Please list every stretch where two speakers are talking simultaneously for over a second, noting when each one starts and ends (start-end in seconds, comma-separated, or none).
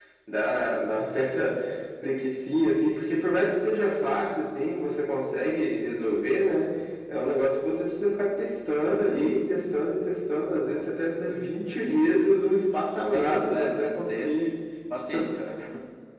13.0-14.3